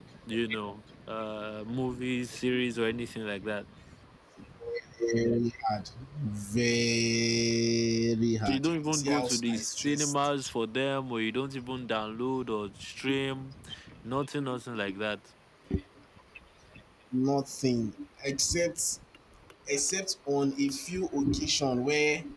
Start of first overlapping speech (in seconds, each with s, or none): 8.4 s